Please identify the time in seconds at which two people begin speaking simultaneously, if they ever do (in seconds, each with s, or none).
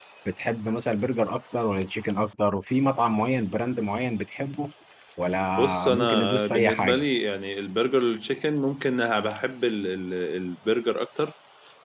5.6 s